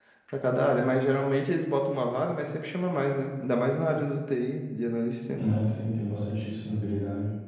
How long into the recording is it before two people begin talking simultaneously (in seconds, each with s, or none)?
none